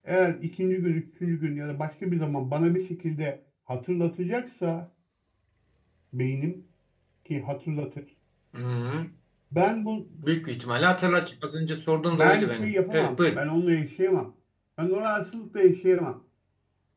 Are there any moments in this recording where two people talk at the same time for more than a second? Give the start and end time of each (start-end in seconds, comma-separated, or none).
12.1-13.5